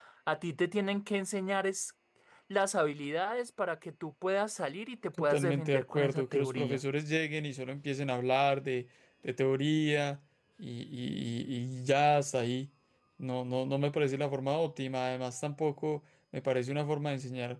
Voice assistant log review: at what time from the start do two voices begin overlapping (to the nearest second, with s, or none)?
5 s